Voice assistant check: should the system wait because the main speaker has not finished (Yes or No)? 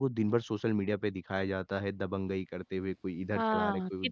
No